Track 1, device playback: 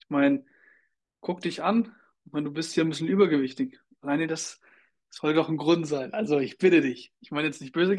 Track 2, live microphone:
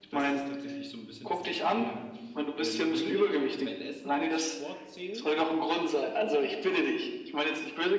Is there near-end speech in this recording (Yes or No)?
Yes